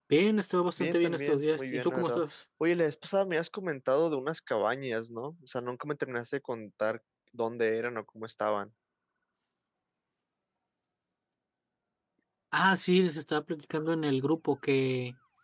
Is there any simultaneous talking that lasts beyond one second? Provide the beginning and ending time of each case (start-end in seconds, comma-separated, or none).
0.8-2.2